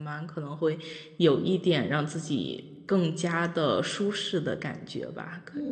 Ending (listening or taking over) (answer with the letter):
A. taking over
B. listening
A